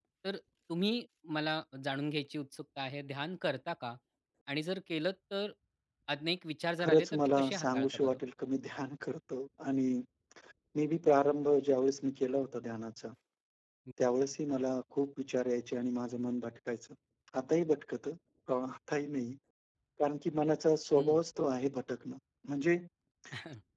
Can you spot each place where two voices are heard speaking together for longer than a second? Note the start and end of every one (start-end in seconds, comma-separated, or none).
6.8-8.2